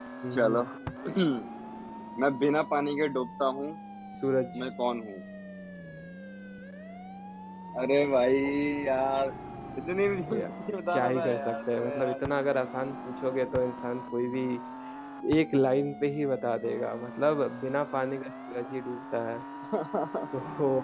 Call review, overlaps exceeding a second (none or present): present